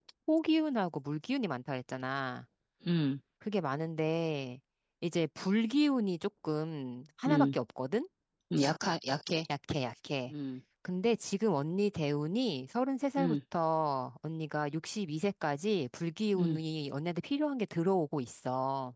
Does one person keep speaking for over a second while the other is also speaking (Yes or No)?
No